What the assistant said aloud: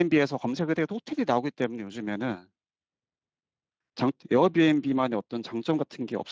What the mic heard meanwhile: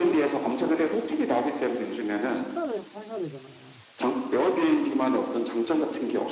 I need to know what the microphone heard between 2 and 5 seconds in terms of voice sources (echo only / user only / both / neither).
both